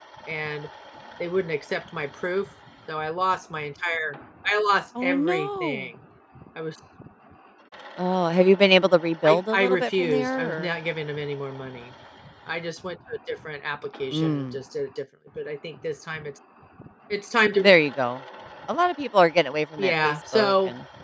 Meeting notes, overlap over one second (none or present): present